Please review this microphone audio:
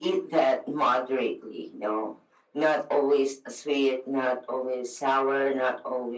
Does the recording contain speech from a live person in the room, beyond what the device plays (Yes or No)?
No